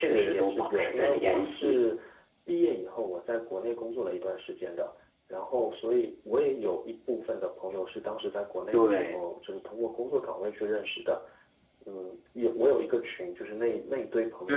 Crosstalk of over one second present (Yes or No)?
Yes